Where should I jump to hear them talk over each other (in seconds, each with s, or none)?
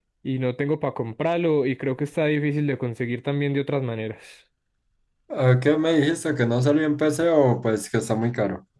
none